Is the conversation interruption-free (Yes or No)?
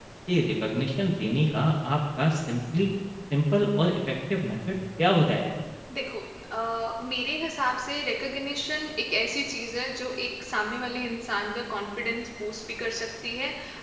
Yes